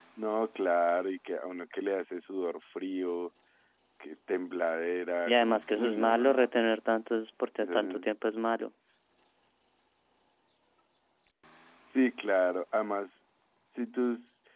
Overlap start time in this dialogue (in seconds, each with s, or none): 5.3 s